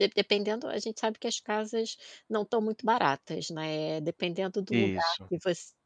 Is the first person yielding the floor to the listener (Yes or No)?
No